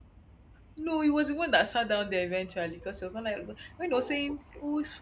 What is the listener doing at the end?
listening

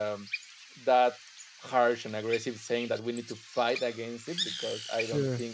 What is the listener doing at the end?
listening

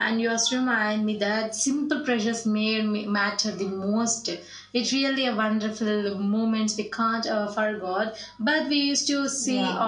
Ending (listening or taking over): listening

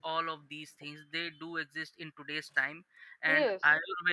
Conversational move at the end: listening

